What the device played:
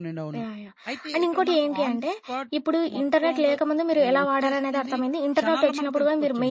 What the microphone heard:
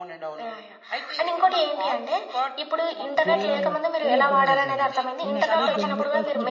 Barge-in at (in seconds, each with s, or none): 3.3 s